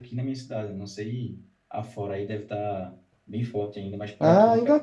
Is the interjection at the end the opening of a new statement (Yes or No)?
Yes